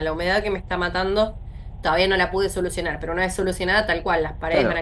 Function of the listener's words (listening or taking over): taking over